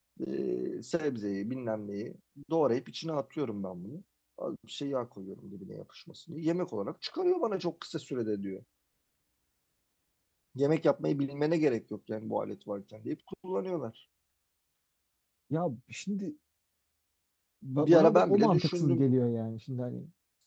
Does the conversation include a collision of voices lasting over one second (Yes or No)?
Yes